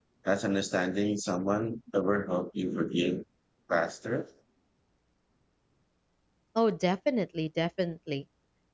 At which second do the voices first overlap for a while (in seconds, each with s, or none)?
none